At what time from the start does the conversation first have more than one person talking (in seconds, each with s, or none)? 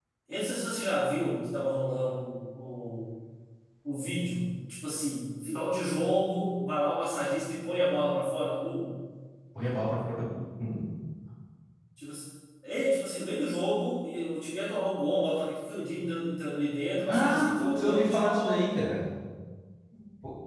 17.1 s